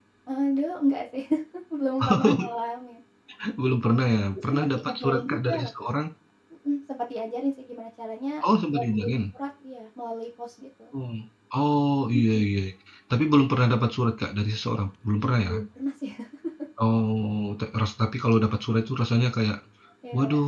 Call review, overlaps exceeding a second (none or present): present